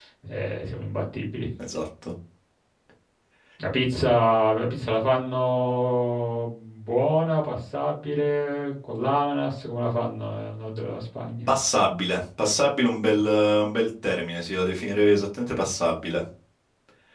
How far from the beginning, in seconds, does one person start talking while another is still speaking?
none

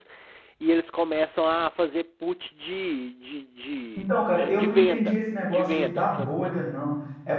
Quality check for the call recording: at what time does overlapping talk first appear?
4.0 s

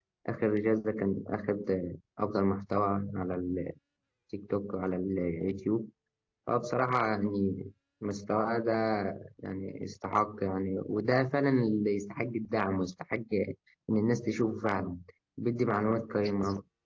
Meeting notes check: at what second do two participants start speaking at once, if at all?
none

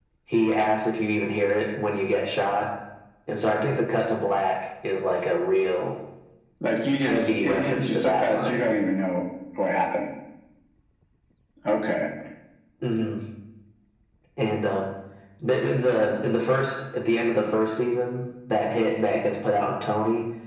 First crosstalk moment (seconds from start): 7.0 s

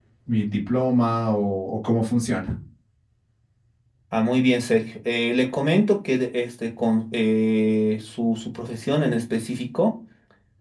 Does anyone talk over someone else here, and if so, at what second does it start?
none

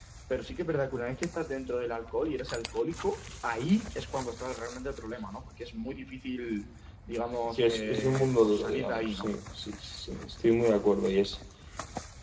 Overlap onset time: 7.5 s

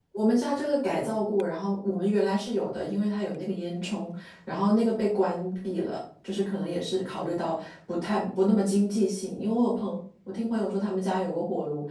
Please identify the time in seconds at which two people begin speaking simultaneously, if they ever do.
none

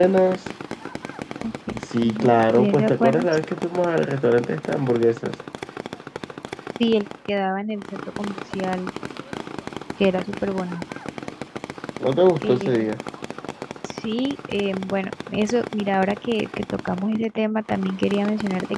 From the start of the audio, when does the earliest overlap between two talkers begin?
2.0 s

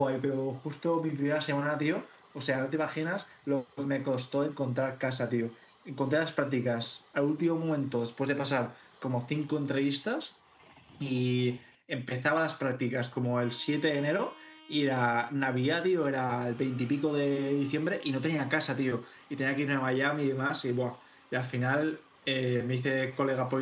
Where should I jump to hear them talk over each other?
none

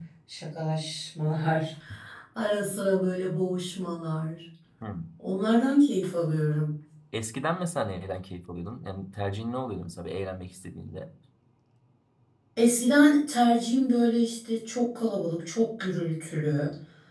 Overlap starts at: none

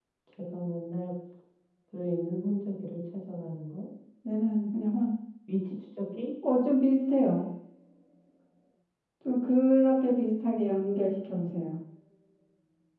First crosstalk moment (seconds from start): none

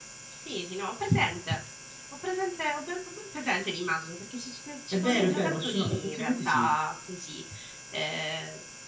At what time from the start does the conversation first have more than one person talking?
4.9 s

